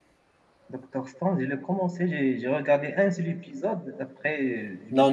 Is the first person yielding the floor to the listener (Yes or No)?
Yes